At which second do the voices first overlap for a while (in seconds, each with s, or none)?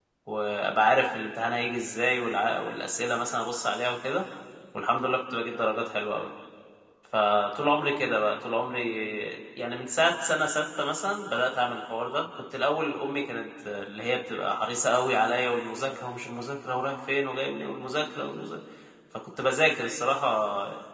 none